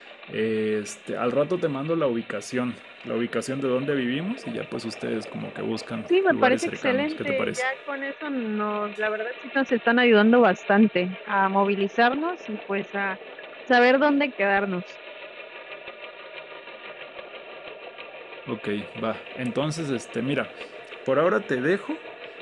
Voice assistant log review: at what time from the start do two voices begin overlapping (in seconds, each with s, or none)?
6.3 s